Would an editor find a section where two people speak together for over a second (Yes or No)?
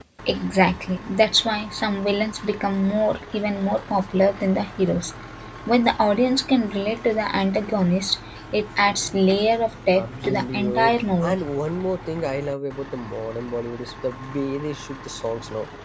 Yes